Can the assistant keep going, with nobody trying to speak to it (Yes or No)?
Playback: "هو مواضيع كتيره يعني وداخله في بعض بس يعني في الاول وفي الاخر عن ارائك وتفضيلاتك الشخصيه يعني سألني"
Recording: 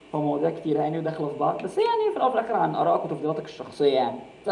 Yes